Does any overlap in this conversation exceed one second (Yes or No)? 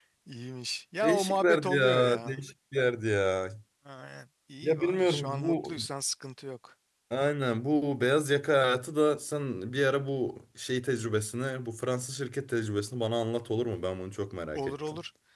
Yes